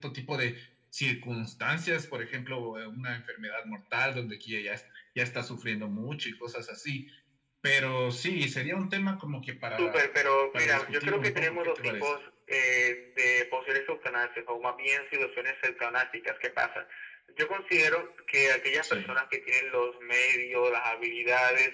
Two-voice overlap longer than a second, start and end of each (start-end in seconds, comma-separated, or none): 10.5-12.1